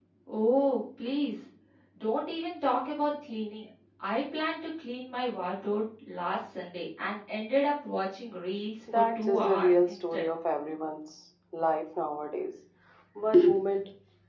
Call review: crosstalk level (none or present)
present